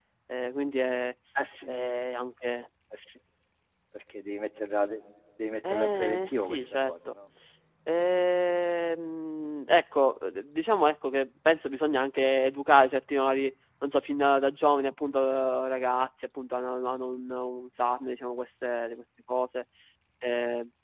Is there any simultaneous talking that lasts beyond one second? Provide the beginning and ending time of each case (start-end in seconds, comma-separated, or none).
5.7-6.9